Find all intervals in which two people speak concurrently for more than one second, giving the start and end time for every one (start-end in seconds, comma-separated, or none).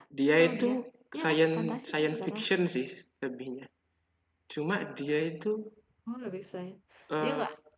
1.1-2.4